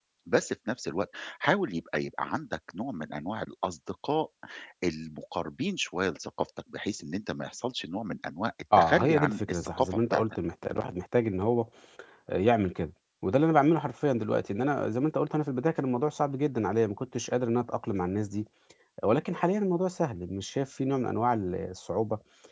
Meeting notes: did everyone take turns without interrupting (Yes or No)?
No